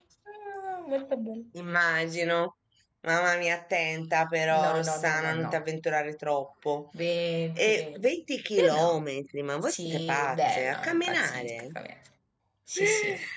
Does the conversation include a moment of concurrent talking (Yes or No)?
Yes